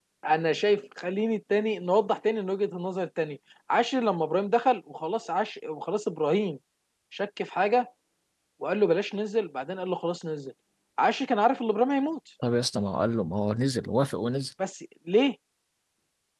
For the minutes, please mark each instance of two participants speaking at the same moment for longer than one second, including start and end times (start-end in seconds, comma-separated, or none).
none